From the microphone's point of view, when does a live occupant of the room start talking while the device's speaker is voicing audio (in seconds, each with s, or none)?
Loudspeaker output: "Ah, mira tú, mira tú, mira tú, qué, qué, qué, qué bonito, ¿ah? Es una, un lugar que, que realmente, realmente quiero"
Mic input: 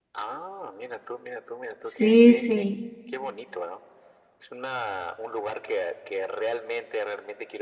1.8 s